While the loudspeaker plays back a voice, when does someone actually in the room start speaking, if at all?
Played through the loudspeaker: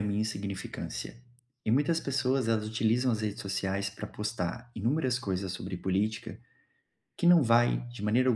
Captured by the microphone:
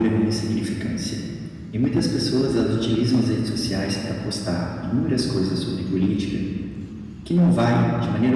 none

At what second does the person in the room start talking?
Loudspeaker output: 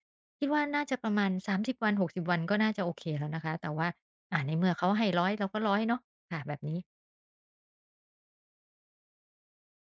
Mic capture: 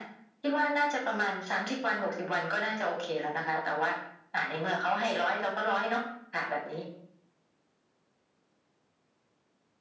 none

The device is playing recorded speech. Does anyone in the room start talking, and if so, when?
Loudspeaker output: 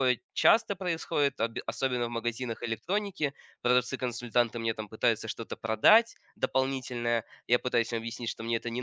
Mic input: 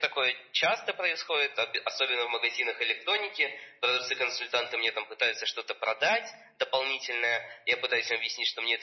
none

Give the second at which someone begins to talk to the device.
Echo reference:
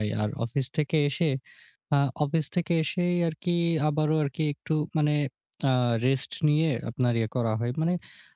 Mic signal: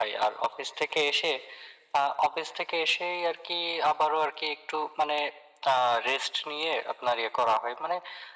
none

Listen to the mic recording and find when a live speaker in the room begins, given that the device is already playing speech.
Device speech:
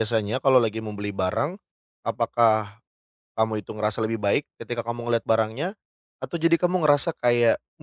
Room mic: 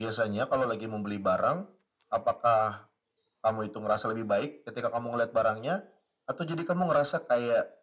none

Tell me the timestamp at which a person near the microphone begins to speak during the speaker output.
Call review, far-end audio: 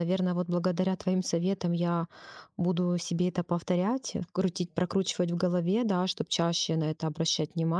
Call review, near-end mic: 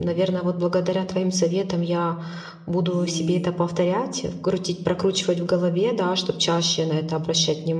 2.9 s

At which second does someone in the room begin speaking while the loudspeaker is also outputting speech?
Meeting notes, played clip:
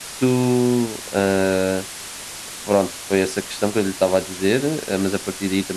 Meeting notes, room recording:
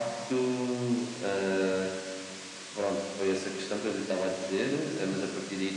none

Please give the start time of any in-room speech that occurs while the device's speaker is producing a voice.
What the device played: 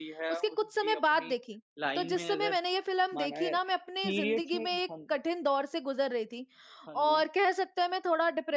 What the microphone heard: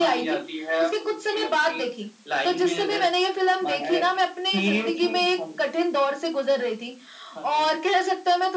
none

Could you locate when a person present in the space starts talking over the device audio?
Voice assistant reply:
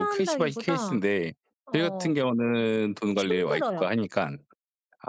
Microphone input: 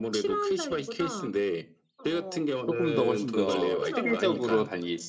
2.6 s

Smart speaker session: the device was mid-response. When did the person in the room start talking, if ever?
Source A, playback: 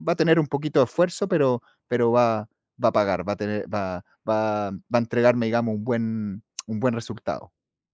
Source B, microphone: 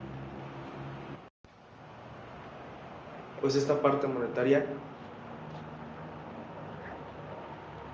3.4 s

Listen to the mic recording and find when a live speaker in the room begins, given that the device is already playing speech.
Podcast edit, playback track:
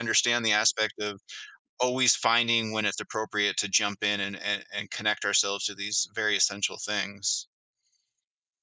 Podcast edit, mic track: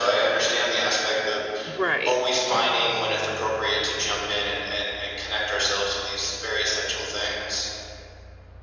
1.8 s

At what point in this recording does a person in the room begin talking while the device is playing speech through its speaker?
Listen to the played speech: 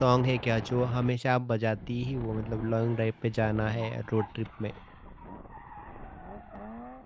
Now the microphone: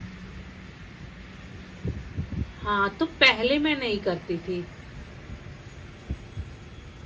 2.6 s

